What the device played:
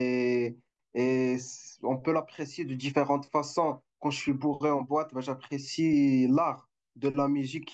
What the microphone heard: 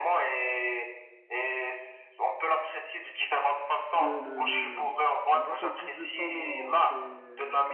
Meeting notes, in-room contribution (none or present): present